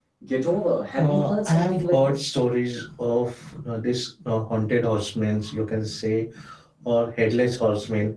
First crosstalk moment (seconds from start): 1.0 s

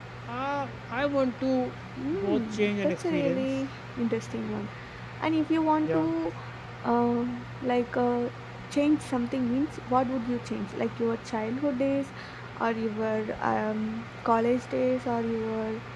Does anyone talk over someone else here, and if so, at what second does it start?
2.1 s

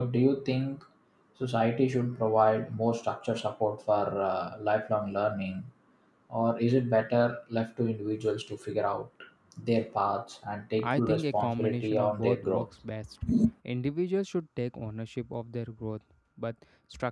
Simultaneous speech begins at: 10.8 s

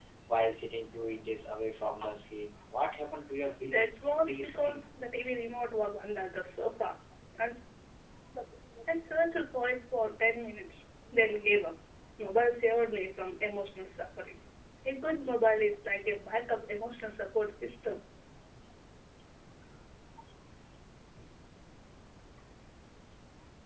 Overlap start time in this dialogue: 3.6 s

